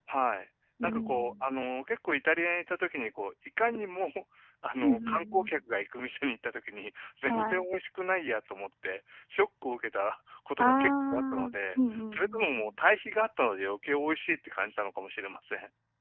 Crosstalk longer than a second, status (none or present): present